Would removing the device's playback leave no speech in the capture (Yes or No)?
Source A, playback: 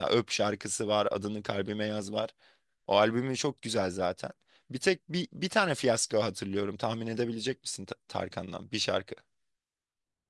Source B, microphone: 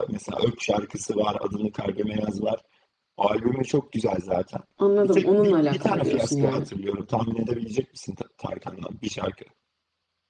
No